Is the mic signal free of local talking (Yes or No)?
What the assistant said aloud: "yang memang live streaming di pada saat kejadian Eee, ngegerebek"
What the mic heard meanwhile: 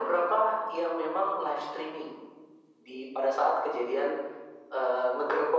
Yes